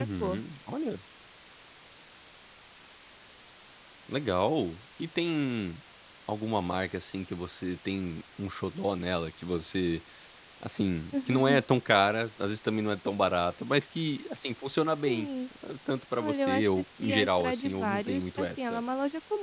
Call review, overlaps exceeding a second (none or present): present